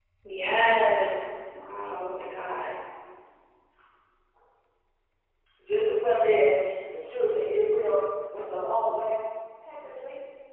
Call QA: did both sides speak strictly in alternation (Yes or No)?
Yes